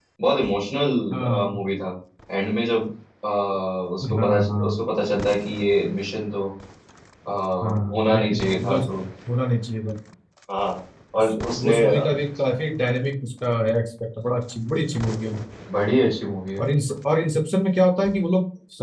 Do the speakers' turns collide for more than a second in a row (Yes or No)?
Yes